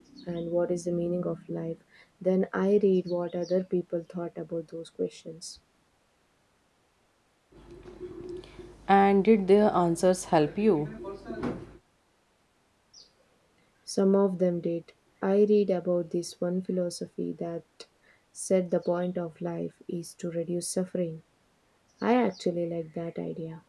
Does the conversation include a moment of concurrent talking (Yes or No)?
No